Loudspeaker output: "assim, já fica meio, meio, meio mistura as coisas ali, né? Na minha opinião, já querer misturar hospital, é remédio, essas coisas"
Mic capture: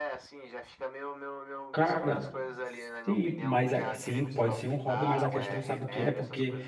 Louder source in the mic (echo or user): user